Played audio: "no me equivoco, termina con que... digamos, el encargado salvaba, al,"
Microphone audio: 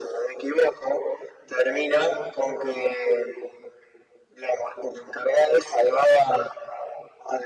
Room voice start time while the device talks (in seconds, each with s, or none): none